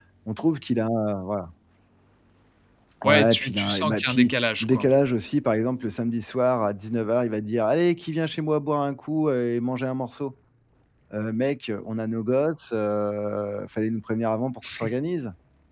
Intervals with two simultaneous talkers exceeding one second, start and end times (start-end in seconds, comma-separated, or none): 3.0-4.9